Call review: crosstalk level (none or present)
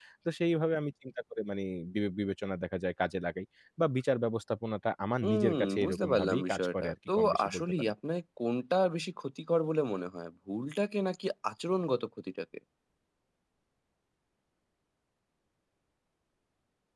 present